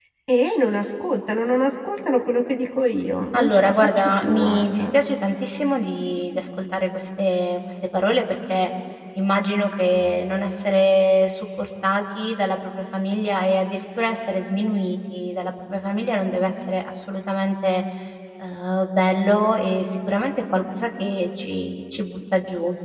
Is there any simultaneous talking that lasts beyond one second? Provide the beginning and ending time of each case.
3.3-4.8

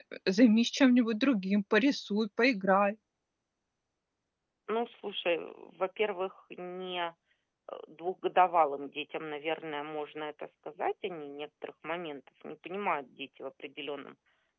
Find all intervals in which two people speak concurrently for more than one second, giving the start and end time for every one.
none

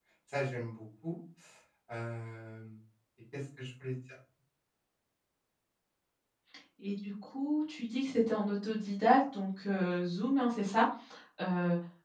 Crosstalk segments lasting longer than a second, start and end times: none

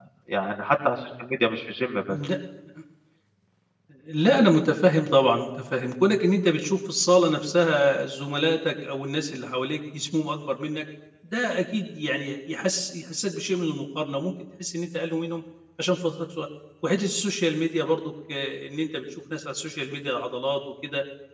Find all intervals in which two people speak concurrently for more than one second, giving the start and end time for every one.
none

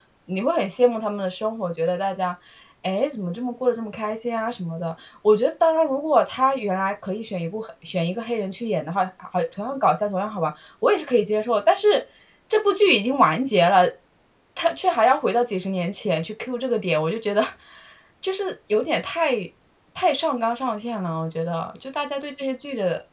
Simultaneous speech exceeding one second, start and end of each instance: none

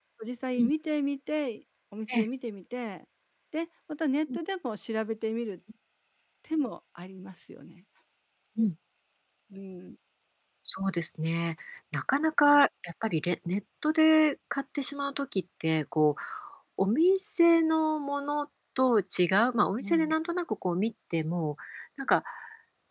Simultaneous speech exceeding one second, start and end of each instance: none

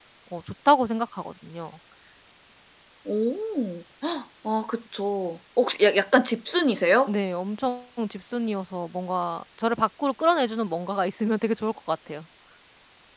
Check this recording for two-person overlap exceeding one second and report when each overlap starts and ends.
none

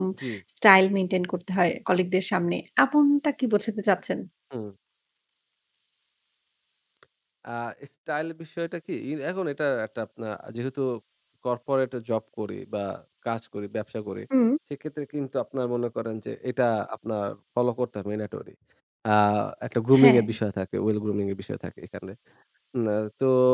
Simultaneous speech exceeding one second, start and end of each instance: none

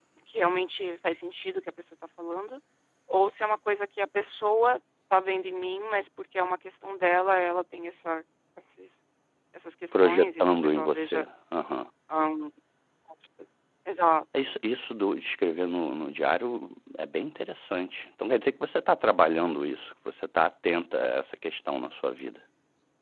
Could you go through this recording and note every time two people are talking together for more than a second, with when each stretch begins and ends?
9.9-11.2

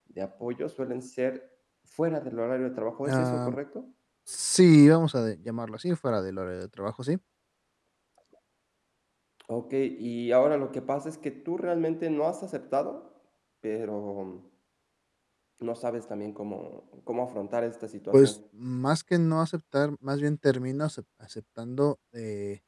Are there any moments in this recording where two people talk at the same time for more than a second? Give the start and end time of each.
none

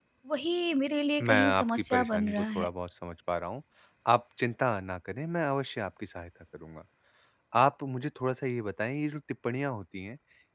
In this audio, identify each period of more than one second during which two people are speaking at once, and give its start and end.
1.2-2.7

